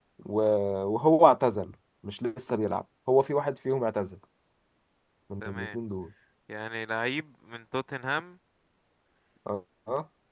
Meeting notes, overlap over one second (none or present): none